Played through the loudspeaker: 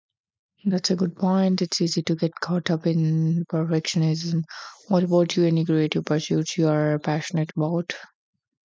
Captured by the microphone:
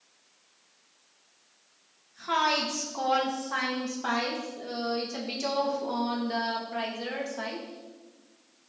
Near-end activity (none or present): present